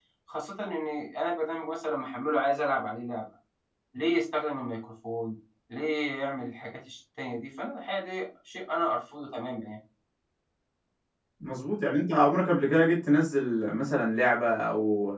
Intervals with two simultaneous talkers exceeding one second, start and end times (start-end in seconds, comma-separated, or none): none